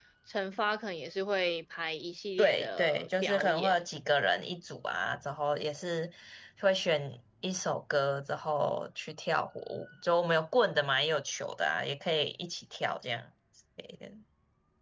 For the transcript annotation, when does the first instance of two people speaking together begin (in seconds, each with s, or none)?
2.4 s